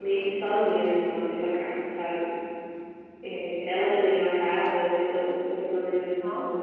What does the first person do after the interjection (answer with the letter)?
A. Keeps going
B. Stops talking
A